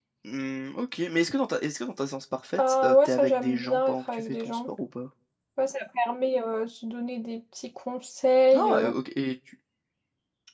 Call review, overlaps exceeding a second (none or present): present